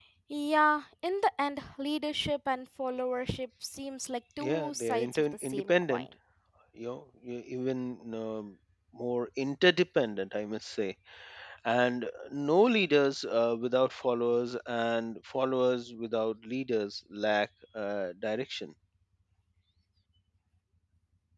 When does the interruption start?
4.4 s

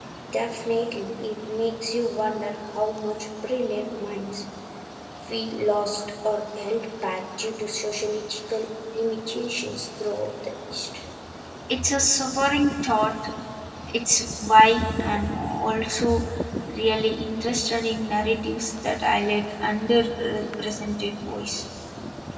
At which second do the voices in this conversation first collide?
none

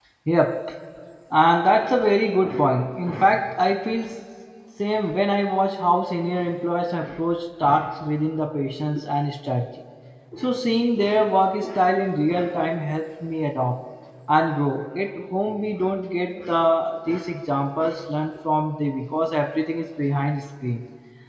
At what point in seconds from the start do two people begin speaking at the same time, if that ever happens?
none

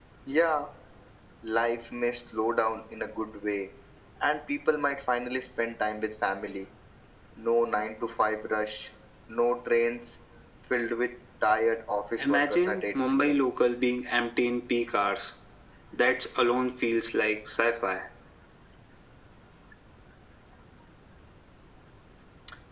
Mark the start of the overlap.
12.2 s

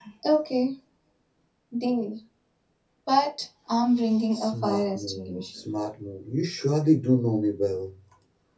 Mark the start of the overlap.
4.3 s

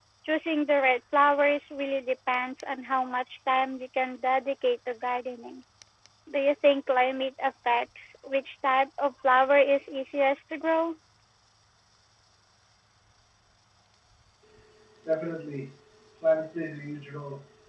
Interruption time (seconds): none

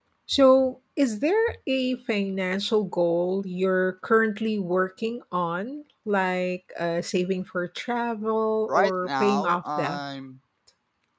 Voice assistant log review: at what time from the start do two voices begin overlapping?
8.7 s

